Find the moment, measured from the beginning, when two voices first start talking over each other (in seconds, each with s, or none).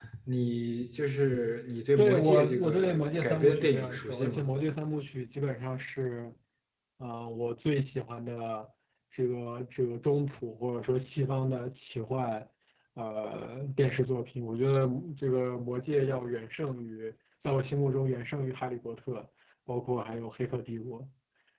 2.0 s